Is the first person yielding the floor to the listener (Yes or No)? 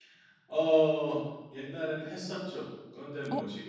No